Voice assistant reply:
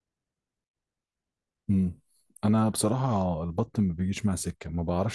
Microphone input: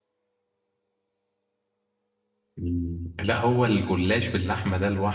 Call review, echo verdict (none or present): none